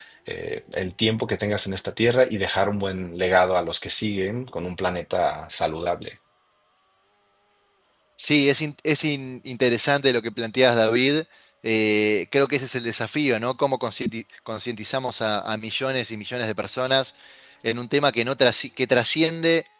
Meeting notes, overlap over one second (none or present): none